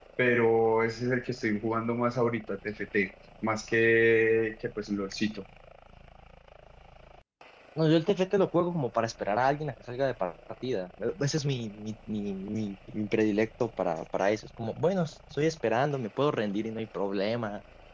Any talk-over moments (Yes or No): No